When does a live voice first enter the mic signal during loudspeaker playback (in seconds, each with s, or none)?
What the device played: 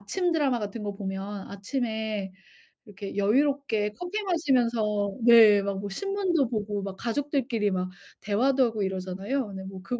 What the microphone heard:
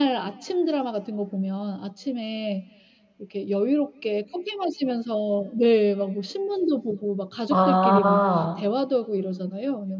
7.5 s